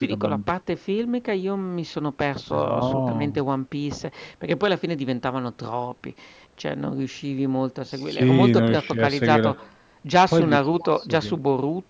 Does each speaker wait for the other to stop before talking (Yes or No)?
No